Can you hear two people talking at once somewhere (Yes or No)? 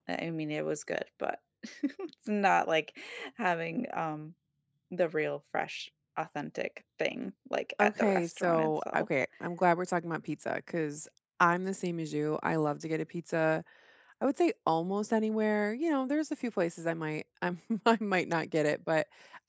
Yes